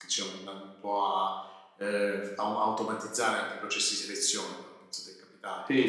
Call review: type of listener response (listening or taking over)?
taking over